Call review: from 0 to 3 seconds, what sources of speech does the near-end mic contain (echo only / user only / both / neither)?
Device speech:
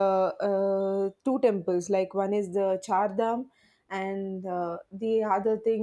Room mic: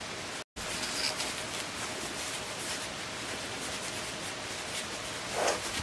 neither